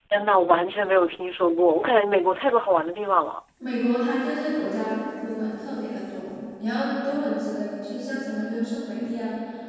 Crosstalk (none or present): none